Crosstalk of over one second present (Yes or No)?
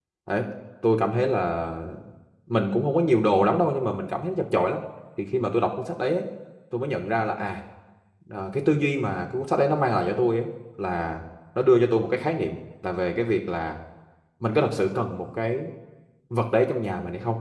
No